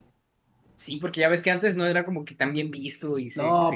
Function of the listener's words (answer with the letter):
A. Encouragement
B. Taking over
B